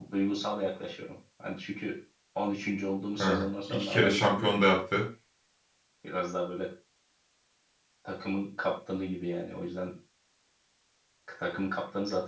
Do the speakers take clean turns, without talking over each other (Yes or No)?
No